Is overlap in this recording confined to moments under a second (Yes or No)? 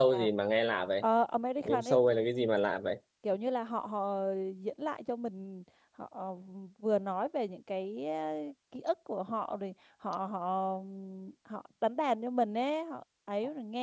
Yes